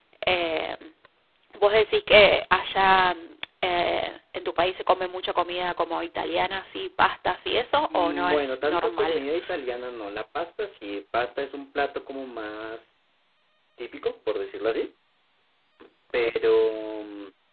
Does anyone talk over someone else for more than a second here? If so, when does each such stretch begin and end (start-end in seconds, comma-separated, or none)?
7.9-9.2